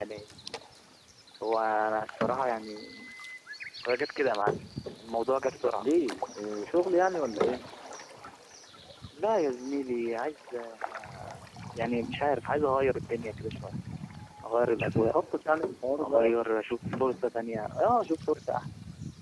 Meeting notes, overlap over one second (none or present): none